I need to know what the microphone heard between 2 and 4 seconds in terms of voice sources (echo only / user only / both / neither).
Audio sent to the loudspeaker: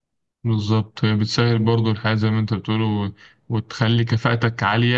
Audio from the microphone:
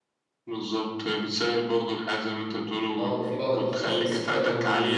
both